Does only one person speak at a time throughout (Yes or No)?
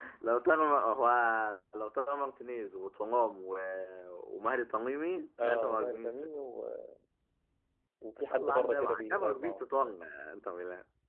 No